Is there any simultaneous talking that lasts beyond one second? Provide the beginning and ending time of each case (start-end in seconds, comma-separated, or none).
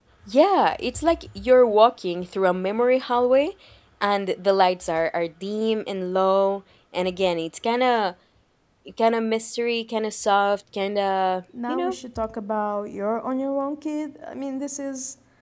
none